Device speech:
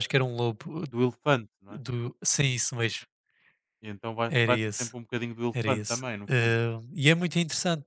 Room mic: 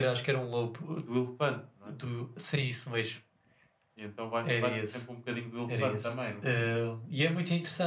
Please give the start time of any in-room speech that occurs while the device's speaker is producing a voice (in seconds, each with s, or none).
none